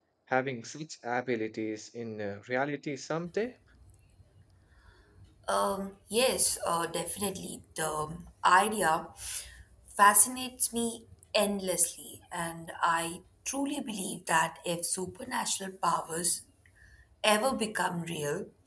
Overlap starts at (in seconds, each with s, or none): none